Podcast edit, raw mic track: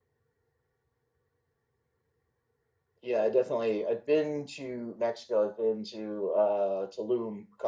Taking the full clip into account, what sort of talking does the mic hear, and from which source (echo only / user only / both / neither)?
user only